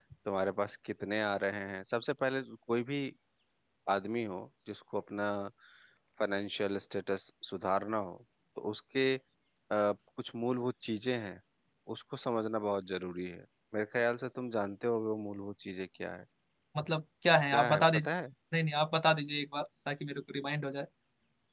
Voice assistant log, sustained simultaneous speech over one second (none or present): none